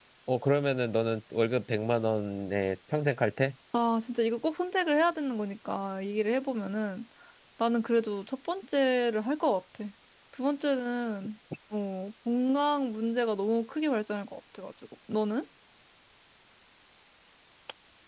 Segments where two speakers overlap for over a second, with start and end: none

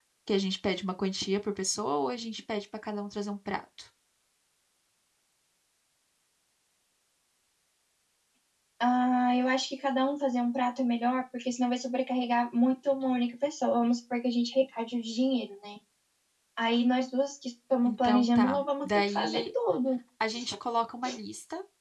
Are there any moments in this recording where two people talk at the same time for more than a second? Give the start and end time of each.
17.8-19.4

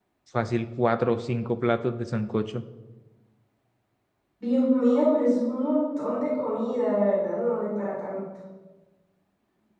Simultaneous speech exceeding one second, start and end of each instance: none

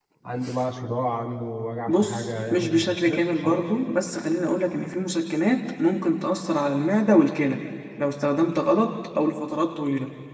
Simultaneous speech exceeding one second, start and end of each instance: 1.9-3.6

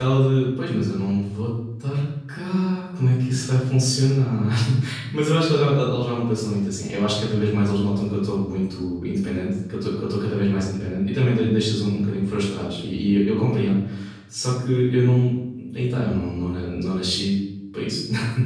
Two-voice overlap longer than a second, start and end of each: none

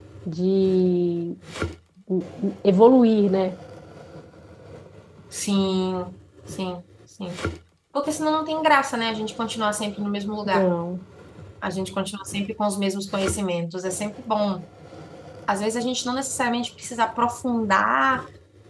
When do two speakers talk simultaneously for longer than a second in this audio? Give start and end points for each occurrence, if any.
none

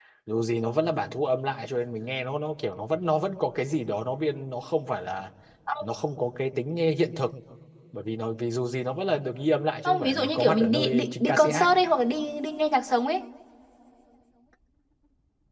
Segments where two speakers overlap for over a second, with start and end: 9.8-11.7

